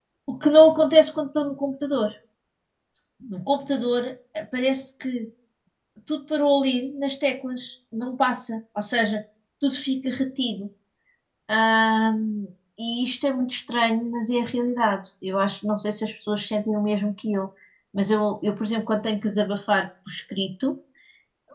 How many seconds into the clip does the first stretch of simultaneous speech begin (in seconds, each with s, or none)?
none